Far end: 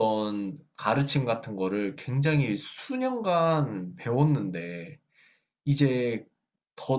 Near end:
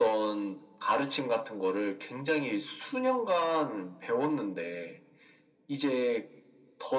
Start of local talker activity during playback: none

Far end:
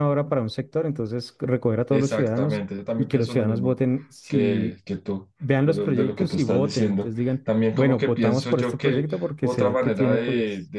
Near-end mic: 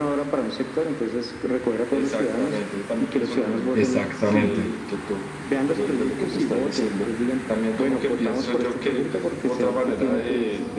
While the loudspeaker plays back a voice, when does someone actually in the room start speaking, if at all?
4 s

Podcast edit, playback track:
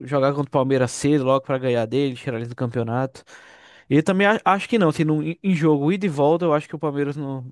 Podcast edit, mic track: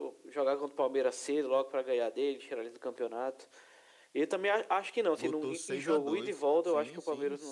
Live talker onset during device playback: 5 s

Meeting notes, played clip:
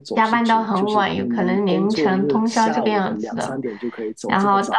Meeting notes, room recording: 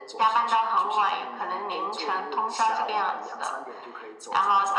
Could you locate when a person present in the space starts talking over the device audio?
none

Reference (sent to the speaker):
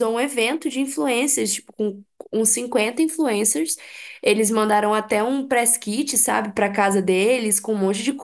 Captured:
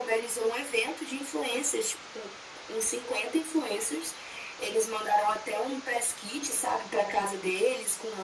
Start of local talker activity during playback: none

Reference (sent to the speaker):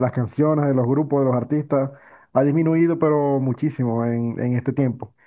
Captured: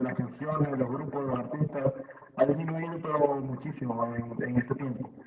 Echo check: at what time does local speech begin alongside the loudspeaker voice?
none

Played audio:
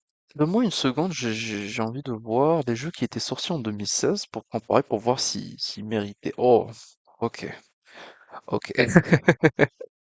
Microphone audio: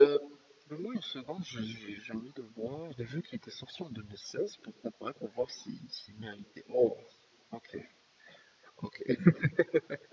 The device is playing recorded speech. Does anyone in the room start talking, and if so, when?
none

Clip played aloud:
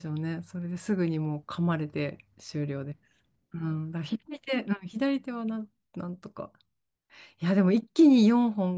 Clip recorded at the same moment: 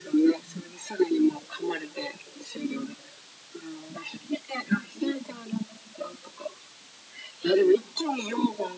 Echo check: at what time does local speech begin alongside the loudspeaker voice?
none

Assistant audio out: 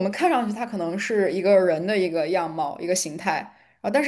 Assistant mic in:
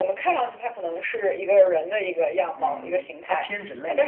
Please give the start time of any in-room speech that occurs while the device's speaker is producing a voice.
3 s

